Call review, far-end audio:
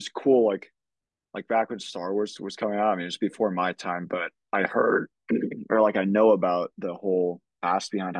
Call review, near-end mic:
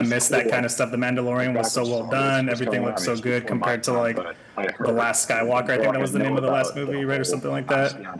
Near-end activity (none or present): present